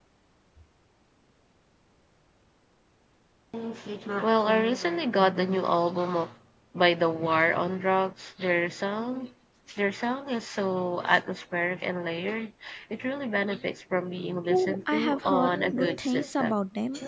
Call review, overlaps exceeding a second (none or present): present